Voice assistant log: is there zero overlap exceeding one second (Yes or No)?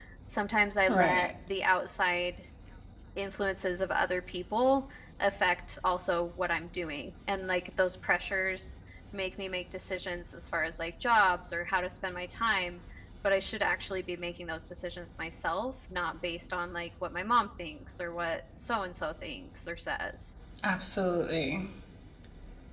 Yes